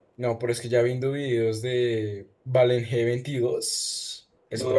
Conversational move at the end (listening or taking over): taking over